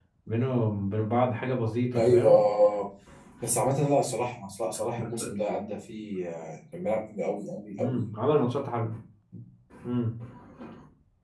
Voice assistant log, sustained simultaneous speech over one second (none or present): none